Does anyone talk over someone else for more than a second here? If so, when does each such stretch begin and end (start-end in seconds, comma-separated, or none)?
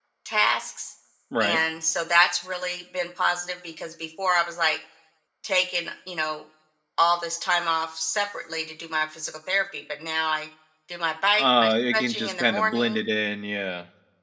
11.3-13.0